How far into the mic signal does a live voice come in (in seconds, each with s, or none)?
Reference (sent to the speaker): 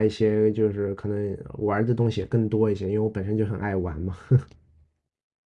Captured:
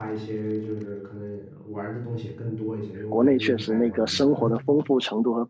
3.1 s